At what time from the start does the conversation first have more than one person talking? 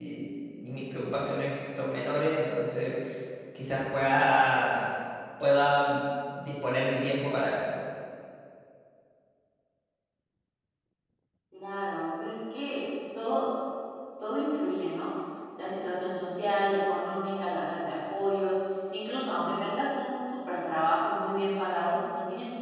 none

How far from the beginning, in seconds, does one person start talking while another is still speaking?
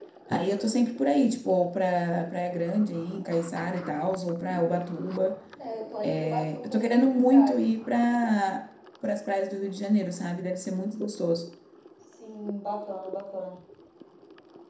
6.0 s

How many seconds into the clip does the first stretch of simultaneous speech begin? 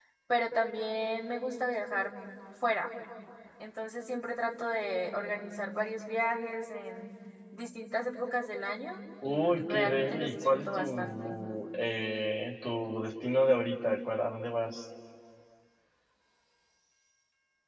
9.2 s

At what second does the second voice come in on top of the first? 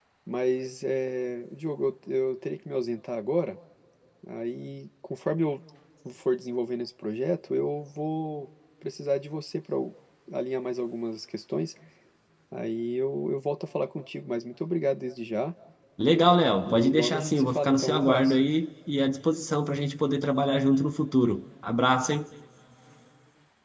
16.6 s

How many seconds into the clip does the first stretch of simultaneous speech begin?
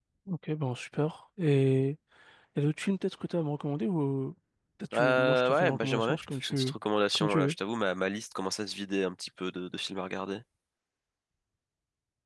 4.9 s

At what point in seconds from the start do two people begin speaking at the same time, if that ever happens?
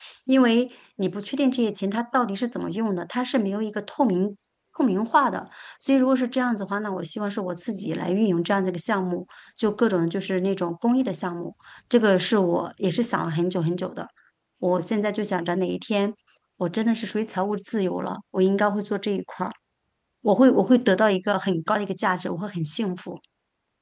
none

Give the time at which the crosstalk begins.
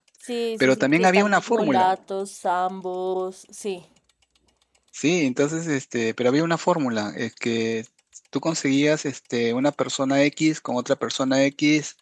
0.6 s

